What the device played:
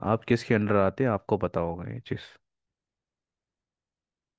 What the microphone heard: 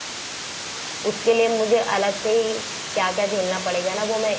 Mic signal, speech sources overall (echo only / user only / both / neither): user only